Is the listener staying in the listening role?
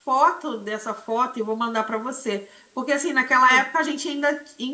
Yes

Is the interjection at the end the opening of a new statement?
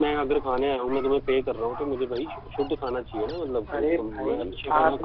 Yes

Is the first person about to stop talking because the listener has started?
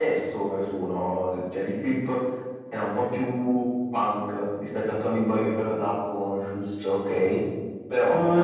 Yes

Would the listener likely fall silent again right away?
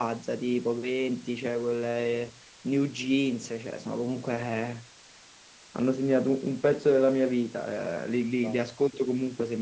Yes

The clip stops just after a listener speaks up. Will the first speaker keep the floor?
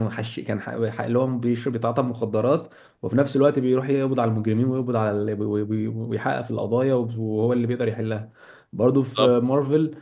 Yes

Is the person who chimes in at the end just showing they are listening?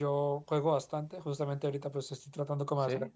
Yes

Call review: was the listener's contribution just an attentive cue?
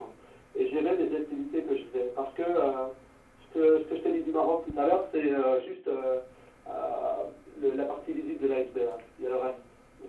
No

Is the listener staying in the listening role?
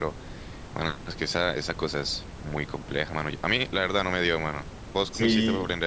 No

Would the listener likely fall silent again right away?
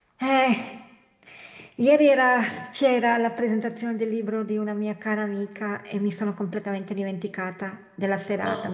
Yes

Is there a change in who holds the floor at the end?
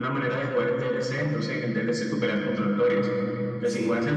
No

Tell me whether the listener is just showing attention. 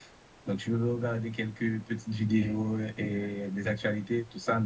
Yes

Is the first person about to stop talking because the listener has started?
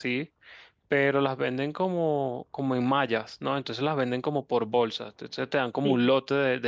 No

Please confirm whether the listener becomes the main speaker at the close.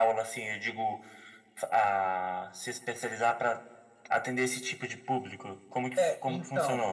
Yes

